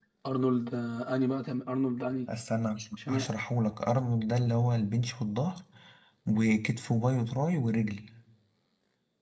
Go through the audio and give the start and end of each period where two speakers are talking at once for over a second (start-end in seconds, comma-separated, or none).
none